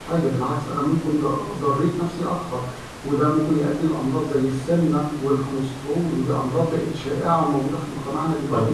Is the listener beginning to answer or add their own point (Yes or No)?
Yes